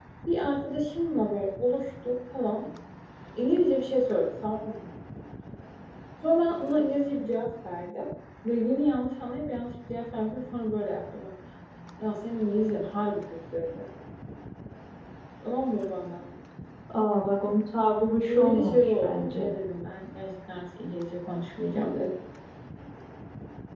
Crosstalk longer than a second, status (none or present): present